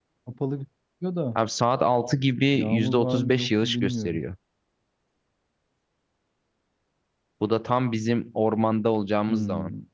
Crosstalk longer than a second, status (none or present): present